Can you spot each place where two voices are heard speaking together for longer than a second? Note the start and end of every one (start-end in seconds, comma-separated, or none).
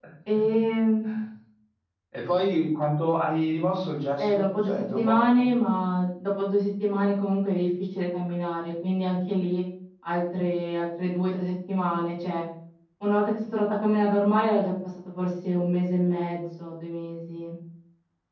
4.2-5.5